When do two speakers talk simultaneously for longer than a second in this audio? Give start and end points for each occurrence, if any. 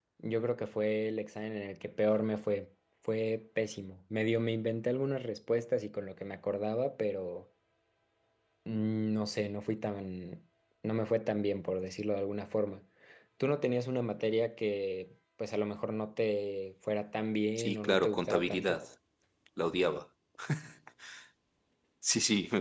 17.6-18.8

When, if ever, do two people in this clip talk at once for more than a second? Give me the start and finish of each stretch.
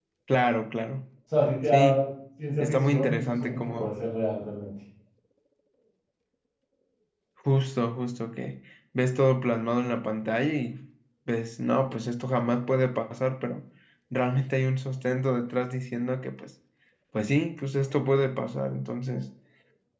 2.6-3.9

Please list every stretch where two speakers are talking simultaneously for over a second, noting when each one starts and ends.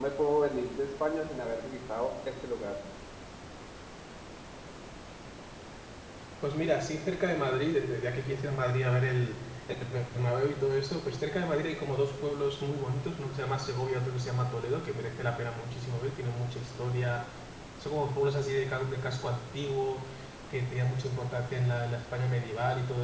none

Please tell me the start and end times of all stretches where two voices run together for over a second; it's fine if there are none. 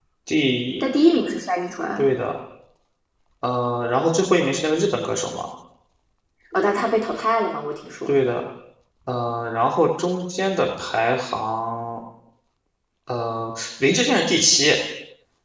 none

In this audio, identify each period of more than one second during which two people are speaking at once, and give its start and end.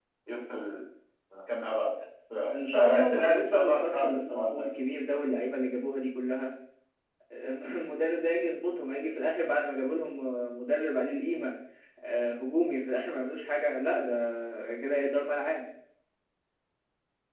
2.5-4.7

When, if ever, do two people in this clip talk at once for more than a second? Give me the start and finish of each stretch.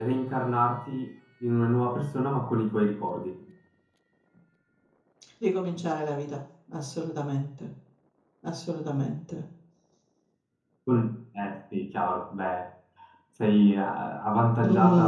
none

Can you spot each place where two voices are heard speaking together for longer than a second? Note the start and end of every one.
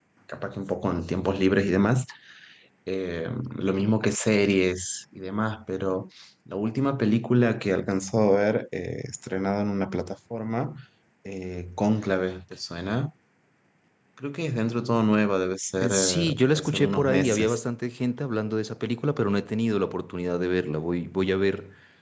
15.8-17.6

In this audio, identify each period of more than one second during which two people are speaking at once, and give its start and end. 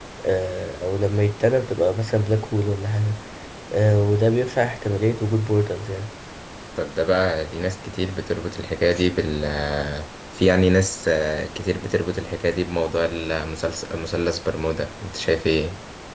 none

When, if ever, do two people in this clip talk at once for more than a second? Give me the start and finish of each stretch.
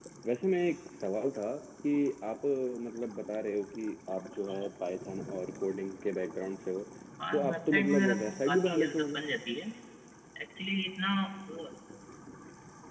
7.3-9.2

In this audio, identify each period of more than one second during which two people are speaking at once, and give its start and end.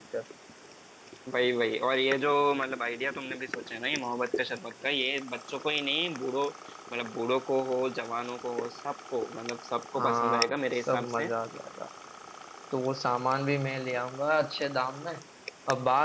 10.0-11.3

